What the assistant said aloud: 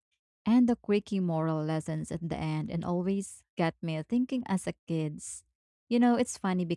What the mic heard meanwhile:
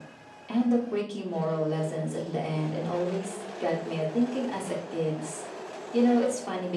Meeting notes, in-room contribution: none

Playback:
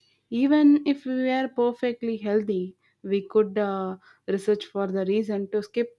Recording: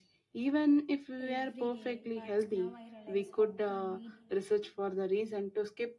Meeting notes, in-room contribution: present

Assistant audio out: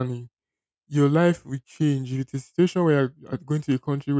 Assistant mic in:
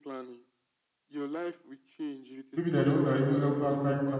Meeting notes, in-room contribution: present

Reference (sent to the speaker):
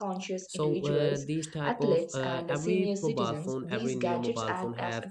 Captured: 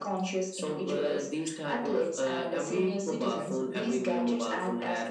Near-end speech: none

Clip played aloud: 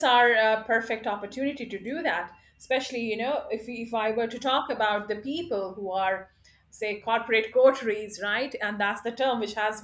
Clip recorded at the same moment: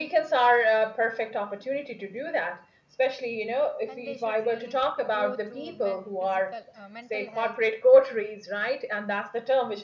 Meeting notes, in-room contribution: present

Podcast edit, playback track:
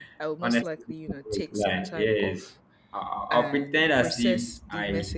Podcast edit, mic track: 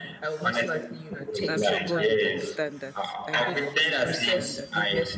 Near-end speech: present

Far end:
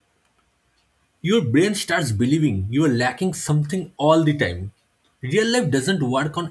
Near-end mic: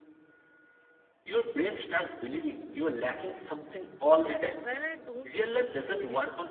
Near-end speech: present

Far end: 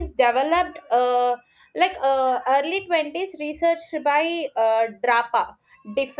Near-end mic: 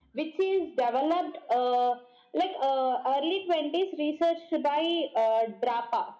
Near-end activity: none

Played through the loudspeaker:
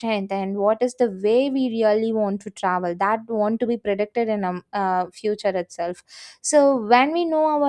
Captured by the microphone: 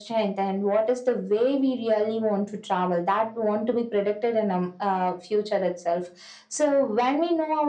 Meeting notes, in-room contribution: none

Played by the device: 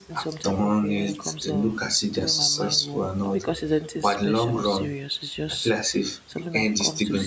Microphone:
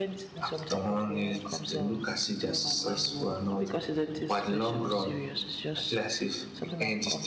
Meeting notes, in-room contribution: none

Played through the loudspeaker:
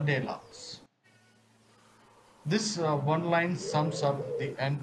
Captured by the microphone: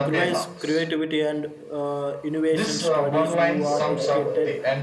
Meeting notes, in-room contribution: present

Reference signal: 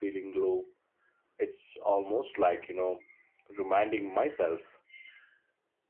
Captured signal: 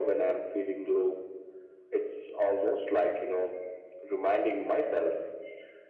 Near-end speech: none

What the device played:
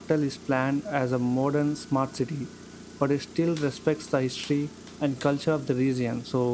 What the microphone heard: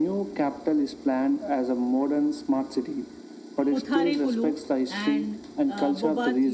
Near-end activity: present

